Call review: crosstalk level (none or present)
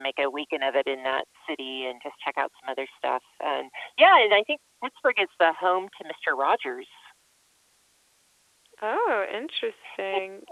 none